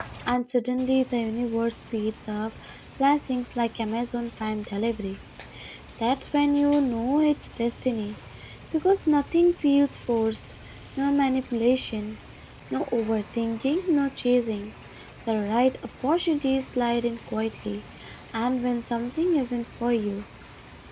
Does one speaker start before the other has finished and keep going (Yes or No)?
No